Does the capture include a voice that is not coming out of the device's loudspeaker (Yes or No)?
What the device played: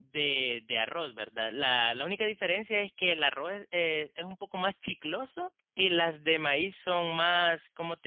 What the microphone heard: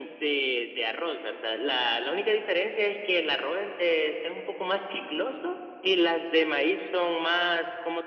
No